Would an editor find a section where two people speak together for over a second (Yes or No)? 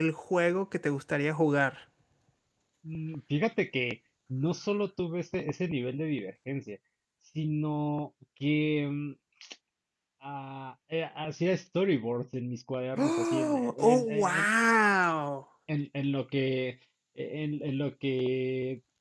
Yes